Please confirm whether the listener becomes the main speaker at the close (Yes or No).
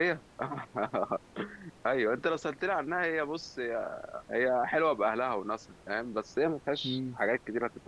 No